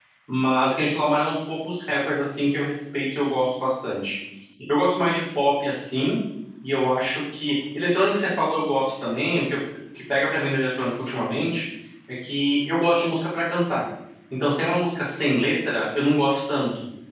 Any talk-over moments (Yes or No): No